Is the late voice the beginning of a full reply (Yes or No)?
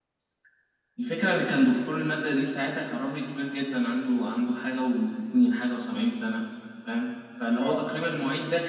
No